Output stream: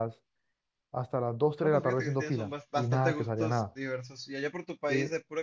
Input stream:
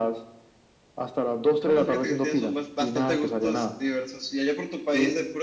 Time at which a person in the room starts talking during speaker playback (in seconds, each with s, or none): none